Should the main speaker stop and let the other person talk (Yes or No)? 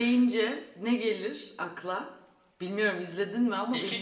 Yes